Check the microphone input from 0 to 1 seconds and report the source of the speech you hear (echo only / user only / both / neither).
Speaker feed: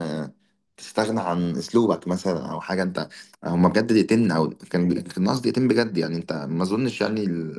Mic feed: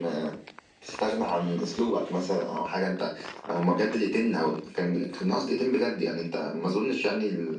echo only